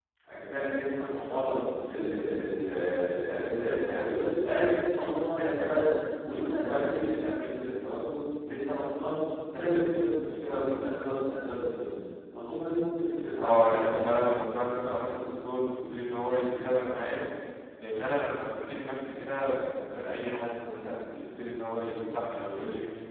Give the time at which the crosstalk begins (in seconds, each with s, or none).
13.4 s